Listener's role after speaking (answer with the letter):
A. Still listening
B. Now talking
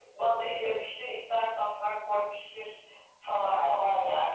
A